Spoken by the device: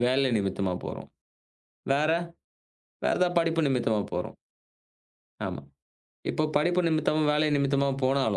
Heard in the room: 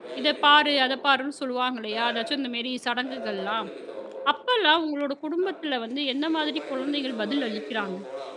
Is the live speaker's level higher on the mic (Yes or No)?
Yes